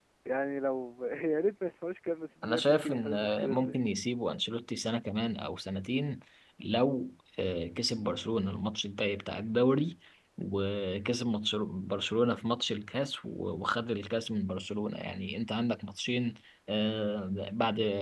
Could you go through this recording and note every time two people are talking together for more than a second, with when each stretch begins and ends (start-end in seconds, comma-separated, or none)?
2.4-3.8